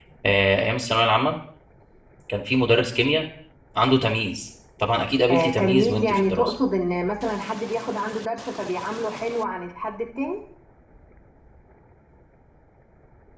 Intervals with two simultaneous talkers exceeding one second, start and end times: 5.3-6.5

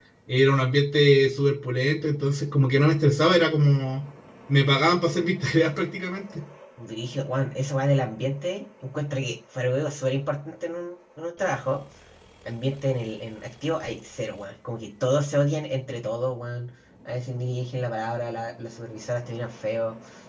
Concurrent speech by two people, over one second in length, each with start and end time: none

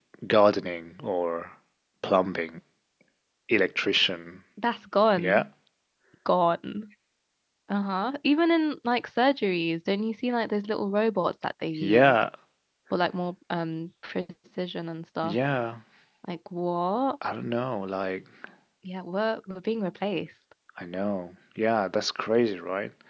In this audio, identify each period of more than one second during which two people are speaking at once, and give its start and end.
none

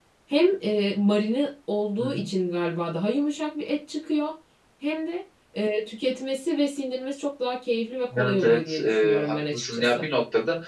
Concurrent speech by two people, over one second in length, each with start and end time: 8.2-10.1

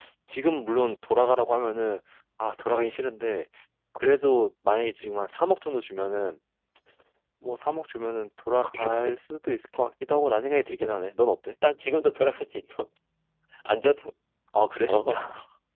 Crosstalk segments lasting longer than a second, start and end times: none

